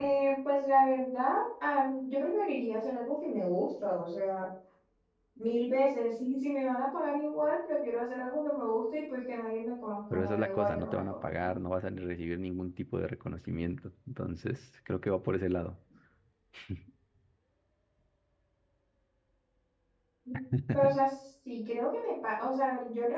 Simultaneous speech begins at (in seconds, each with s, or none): 10.1 s